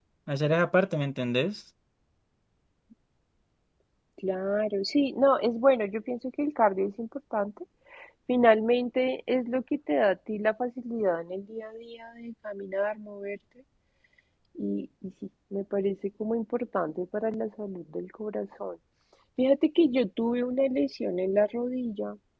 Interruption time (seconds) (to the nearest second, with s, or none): none